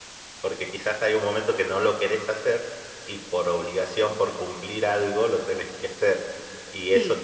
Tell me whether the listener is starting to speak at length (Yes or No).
No